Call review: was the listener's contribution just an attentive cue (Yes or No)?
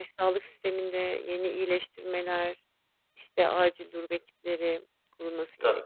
No